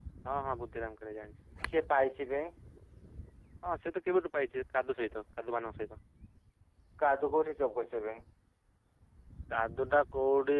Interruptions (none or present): none